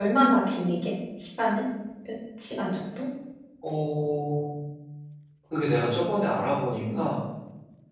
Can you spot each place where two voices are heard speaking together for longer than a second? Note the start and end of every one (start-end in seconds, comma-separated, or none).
none